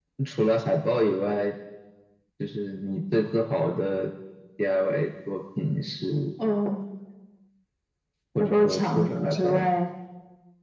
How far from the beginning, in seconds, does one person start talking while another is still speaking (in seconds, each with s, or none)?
8.4 s